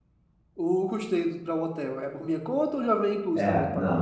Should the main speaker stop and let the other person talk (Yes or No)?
Yes